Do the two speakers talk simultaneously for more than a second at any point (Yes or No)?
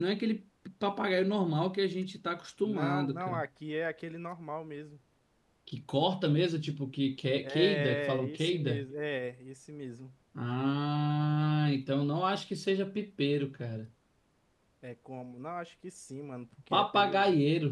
Yes